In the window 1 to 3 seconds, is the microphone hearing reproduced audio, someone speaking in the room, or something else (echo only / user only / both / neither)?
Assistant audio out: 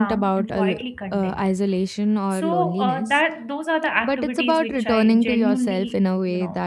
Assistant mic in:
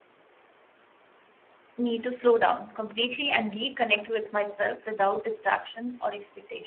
user only